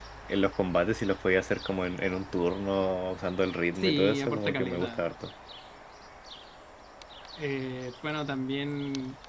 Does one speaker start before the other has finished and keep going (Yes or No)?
Yes